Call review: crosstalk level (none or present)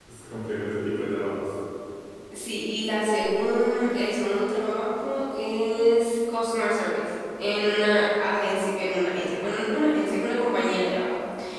none